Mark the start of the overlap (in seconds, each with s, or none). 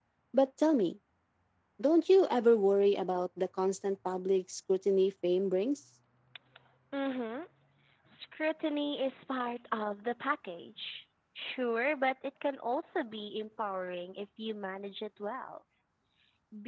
none